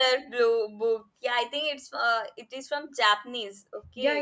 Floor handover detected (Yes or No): Yes